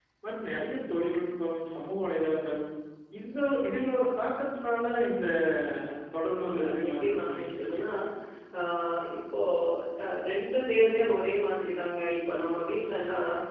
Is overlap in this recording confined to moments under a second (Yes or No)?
No